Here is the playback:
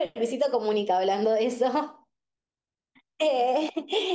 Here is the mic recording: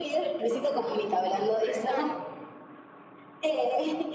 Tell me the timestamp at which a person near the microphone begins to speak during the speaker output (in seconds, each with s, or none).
1.8 s